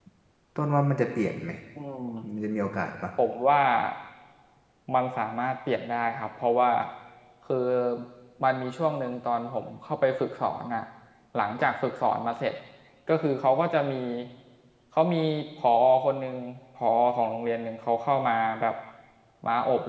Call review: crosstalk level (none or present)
none